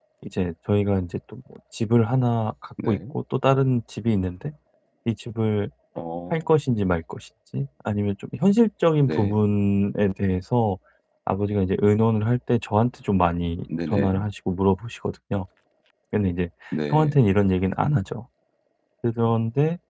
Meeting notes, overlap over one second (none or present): none